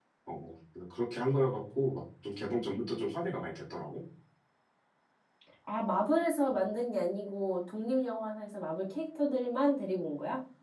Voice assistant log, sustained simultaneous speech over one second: none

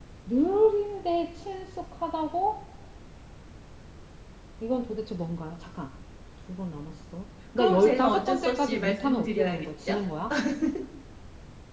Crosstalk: present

